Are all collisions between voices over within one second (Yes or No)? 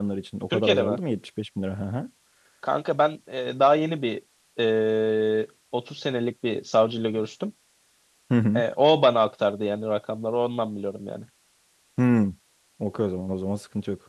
Yes